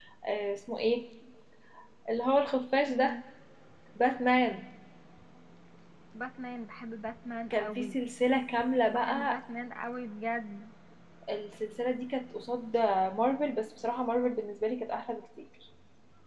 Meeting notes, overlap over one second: none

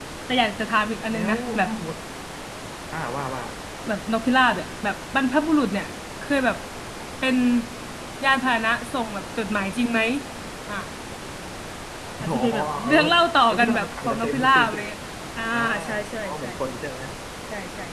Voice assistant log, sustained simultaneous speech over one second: present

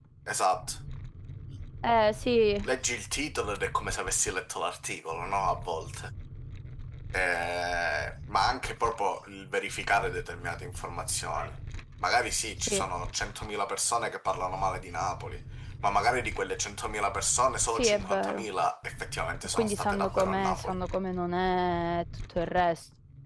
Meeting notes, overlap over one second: present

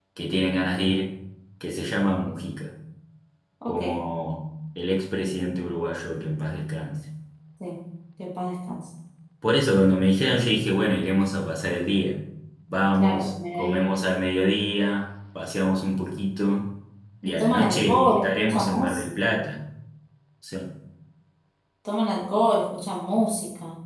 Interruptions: present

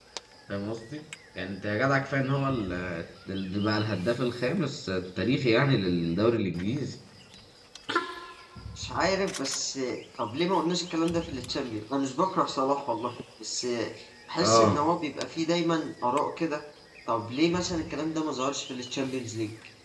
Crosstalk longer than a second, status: none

